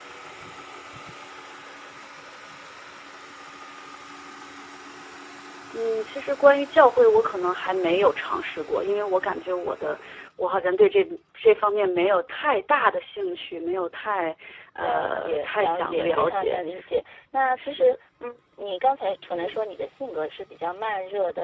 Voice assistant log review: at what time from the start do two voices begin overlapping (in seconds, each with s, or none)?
14.8 s